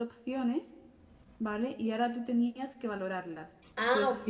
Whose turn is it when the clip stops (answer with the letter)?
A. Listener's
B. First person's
B